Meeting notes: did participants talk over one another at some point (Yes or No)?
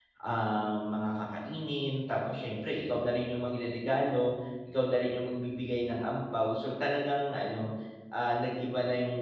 No